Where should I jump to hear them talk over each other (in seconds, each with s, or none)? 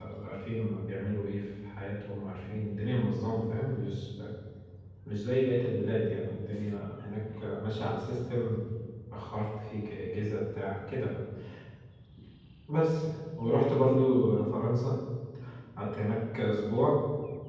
none